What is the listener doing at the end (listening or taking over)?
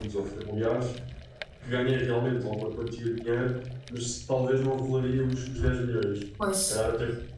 listening